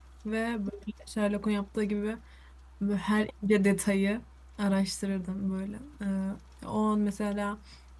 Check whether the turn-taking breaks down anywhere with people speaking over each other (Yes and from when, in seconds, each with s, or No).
No